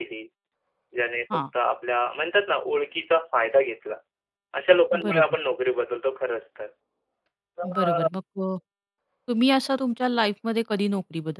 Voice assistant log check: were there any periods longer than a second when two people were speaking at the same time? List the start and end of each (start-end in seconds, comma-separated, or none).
none